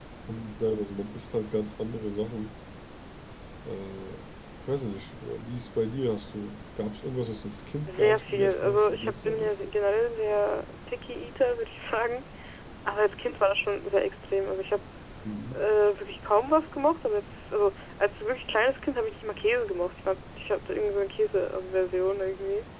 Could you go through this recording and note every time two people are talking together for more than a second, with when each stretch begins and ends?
7.9-9.5

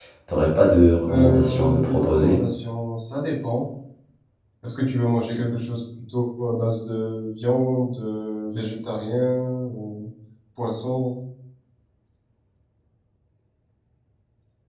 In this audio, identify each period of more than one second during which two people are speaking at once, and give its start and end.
1.1-2.4

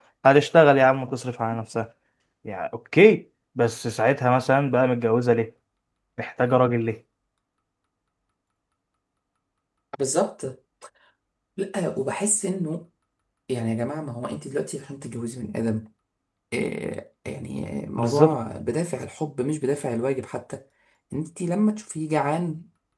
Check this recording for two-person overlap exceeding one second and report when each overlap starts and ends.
none

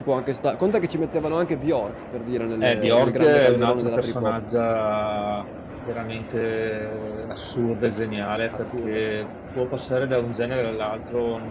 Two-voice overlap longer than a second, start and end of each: 2.6-4.4

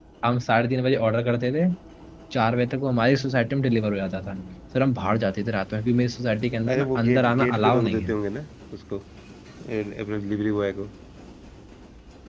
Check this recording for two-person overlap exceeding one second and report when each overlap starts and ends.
6.7-8.1

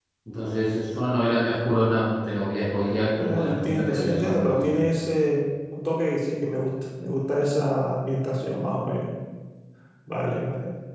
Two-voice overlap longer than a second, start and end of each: 3.2-4.8

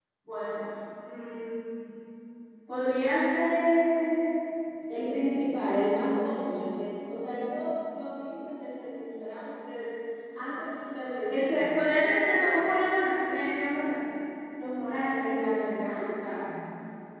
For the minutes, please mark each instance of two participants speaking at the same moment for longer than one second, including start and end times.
none

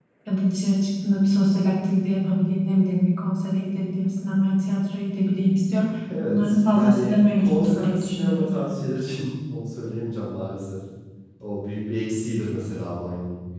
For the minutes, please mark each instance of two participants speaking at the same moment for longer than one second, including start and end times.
6.2-8.5

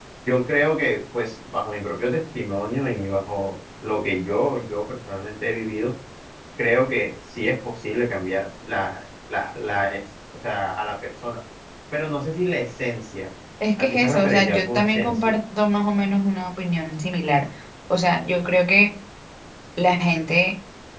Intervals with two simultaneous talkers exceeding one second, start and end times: 13.8-15.3

